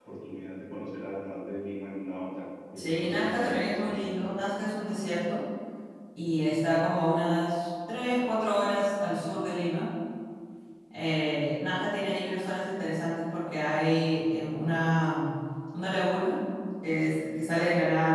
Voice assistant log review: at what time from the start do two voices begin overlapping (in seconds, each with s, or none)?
2.7 s